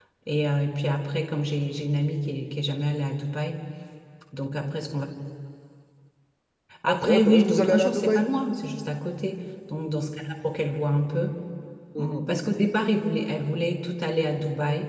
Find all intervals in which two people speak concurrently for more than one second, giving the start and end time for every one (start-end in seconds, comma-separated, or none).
6.9-8.2